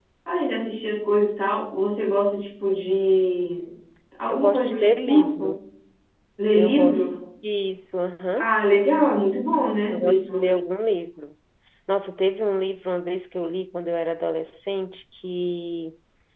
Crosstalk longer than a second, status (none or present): present